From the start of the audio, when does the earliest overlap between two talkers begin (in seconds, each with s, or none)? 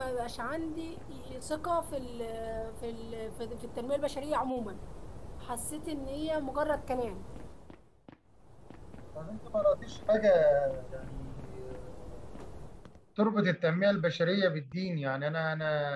none